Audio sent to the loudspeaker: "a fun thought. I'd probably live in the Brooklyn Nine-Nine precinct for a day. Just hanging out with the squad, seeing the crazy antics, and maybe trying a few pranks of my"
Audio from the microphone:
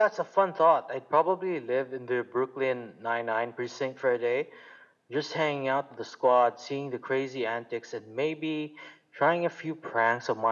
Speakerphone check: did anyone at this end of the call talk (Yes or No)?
No